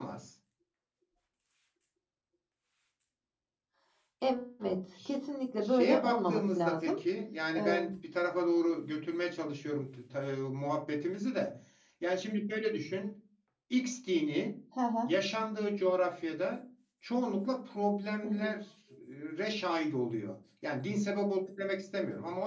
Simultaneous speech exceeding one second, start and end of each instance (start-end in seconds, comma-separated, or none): 5.6-7.0